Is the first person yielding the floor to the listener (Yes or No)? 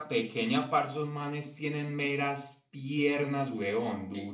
Yes